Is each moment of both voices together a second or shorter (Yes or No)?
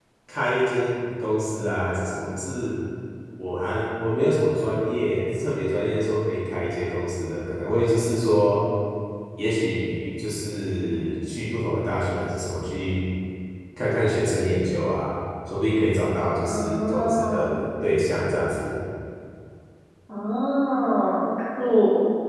No